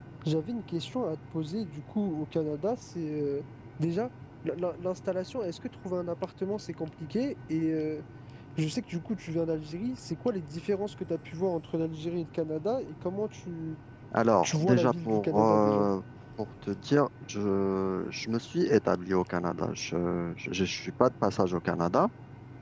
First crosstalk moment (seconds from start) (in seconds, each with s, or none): 14.4 s